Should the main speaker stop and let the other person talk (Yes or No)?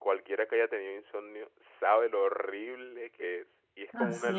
No